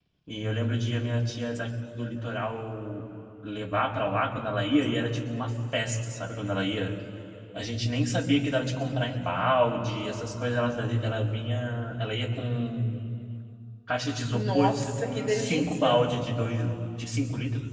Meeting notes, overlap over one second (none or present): present